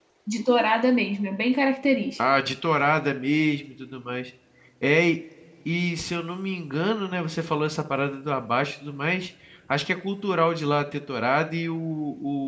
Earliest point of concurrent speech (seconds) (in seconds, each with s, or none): none